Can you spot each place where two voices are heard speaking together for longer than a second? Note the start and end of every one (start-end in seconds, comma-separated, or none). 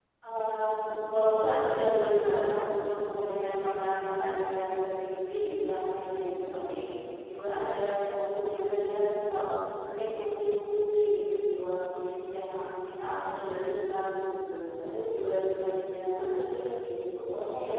none